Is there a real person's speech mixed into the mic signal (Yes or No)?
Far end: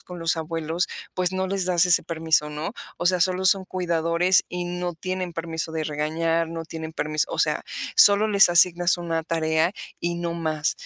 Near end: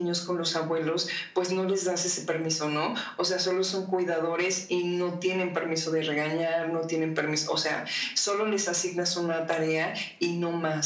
No